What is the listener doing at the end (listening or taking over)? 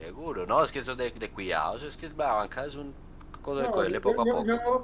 taking over